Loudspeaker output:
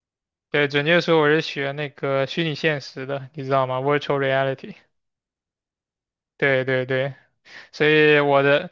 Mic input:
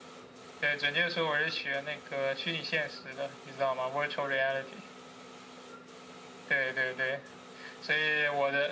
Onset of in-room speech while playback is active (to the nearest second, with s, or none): none